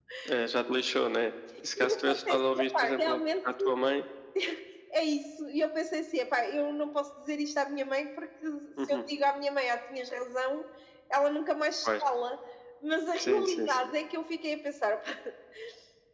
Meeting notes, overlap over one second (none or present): present